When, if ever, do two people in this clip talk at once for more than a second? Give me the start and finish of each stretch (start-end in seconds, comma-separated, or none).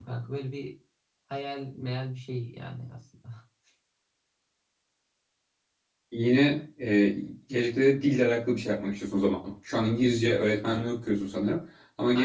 none